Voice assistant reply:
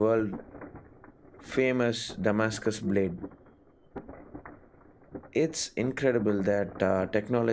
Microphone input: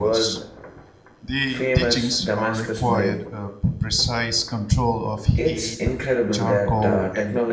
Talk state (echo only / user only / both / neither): both